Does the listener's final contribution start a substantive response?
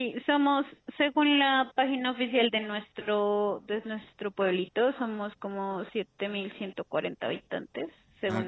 No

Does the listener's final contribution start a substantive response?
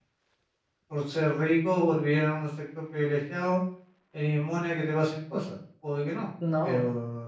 No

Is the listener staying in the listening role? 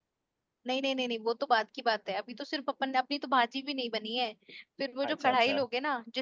Yes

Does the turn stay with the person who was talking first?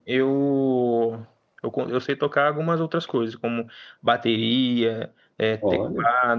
Yes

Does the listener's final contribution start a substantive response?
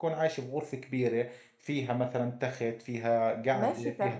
Yes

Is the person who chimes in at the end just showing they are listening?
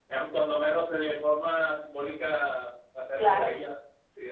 Yes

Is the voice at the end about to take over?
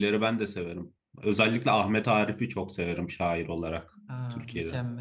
Yes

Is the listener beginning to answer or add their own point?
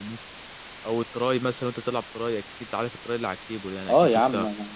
Yes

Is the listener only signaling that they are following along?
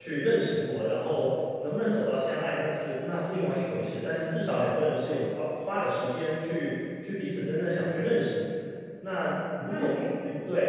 Yes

